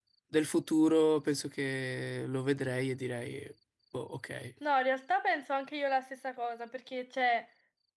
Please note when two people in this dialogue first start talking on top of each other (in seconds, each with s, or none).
none